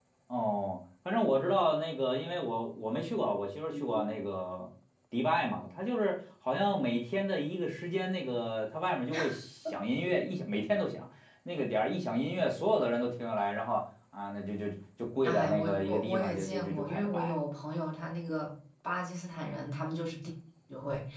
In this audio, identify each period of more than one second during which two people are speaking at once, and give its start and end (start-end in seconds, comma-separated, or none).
15.2-17.3